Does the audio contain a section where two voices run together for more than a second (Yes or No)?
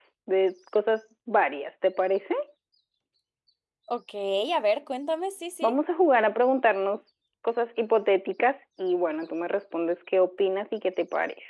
No